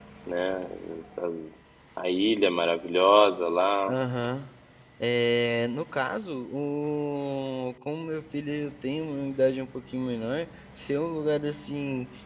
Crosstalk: none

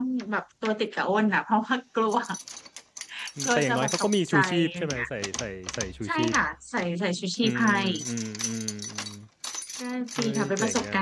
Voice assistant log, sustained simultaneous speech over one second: present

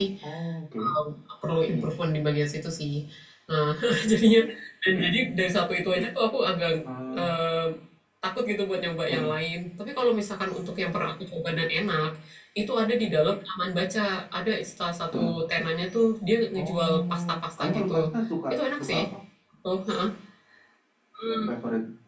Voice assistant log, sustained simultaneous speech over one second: present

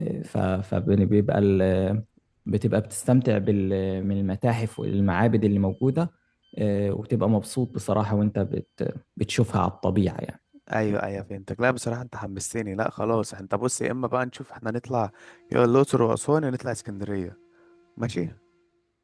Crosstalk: none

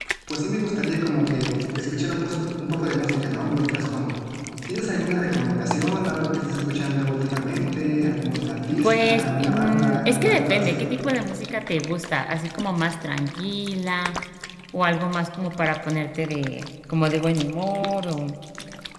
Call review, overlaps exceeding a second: present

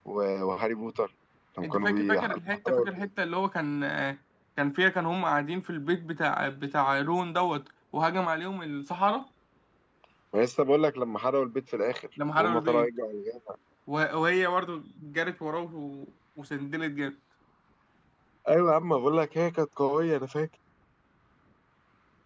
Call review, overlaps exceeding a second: present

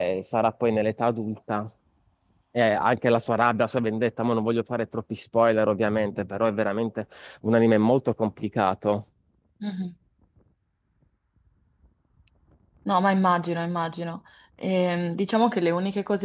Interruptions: none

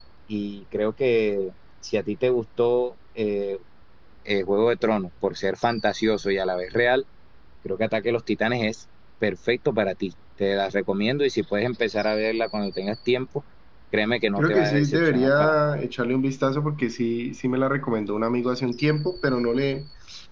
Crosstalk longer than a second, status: present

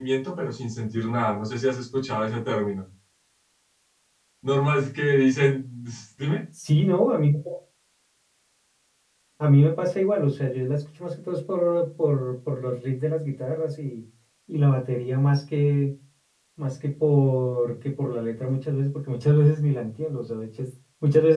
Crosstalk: none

